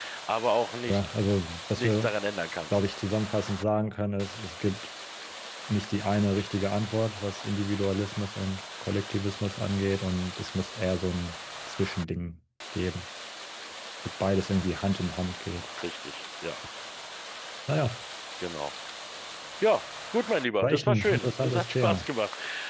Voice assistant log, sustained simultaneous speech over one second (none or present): present